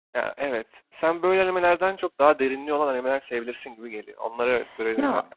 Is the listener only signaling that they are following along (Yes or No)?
No